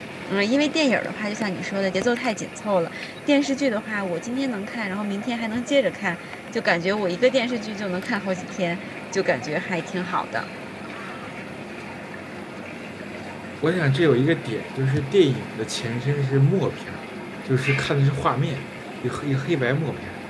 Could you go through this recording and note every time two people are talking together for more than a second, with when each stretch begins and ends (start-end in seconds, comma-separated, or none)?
none